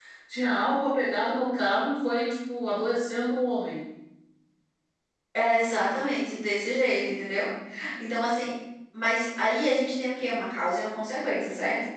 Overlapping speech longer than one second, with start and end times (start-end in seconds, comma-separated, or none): none